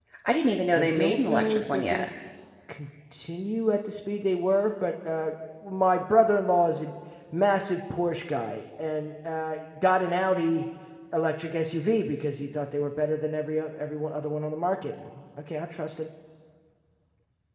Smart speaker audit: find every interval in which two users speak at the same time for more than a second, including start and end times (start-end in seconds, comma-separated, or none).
0.7-2.1